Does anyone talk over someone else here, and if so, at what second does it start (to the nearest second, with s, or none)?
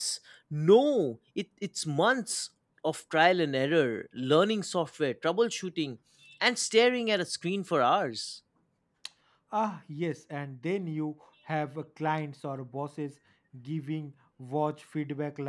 none